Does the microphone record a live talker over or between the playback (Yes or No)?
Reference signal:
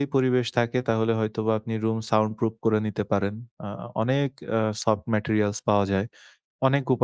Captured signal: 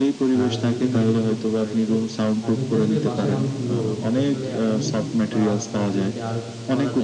Yes